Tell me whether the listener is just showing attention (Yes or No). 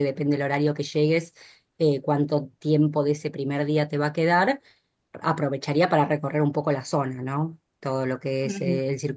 Yes